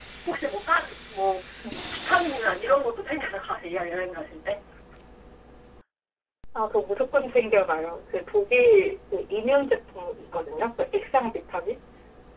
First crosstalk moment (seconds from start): none

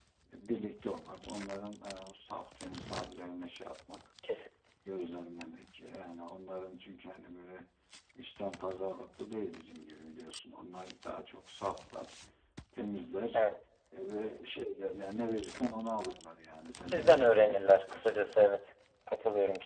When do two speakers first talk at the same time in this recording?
16.9 s

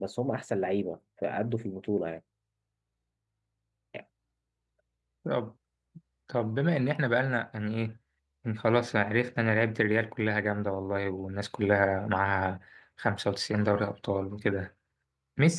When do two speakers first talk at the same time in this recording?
none

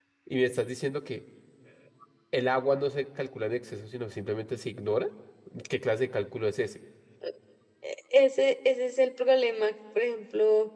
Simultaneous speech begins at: none

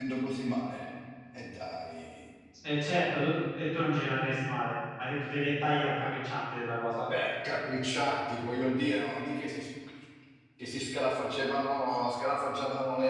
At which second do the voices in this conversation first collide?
none

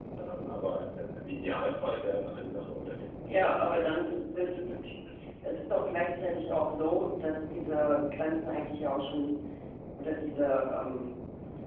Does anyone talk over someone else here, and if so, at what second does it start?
3.3 s

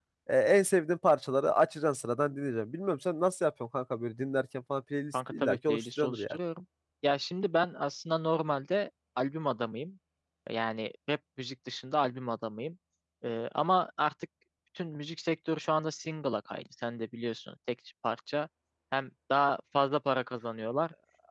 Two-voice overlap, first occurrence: 5.1 s

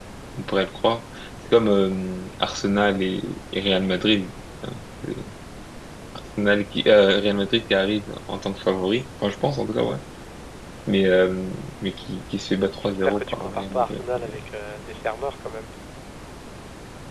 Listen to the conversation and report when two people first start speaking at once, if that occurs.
12.8 s

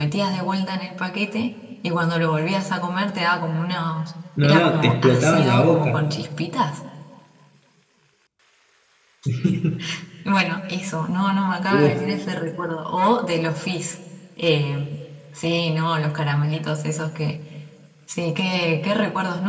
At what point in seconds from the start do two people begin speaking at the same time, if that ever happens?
4.4 s

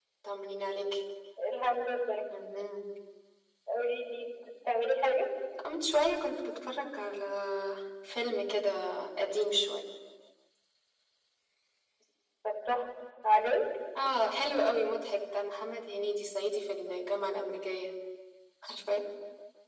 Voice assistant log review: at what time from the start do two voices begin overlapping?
none

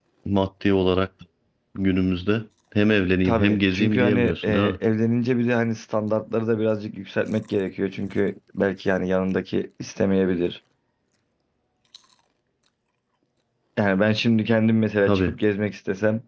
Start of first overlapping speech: 3.2 s

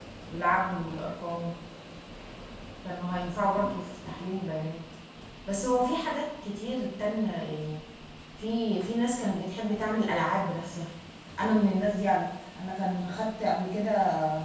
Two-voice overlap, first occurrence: none

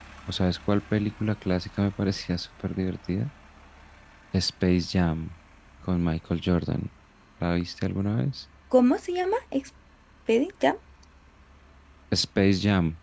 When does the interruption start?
none

